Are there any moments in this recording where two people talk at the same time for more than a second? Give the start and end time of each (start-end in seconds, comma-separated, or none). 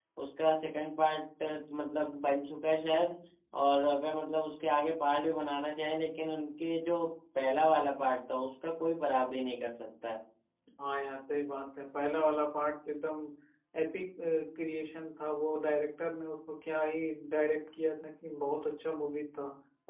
none